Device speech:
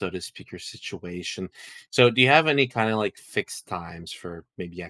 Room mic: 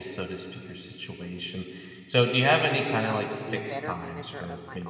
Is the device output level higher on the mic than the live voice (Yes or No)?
Yes